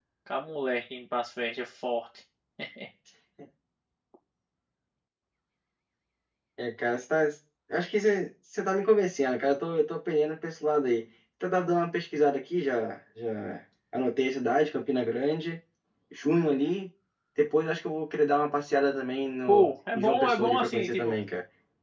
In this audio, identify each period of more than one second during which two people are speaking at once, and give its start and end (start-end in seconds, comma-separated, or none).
19.5-21.1